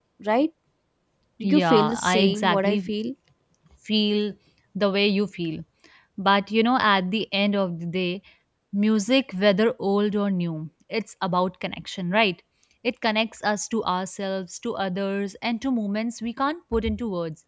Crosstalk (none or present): present